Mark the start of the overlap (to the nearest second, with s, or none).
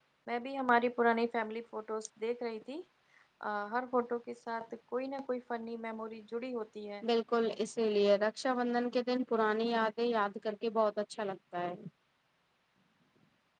none